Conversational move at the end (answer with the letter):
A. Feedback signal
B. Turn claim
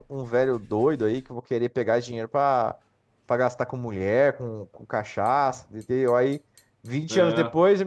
A